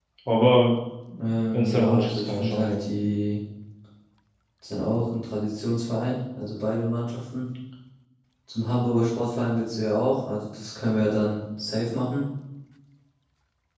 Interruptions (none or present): present